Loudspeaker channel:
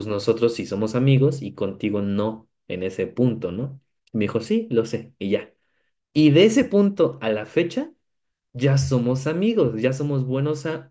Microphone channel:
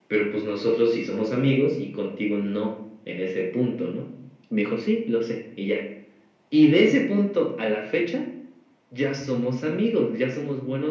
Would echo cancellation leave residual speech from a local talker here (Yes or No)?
No